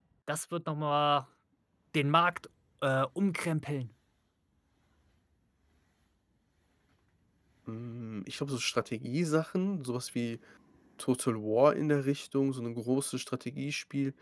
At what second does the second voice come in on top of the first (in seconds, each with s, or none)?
none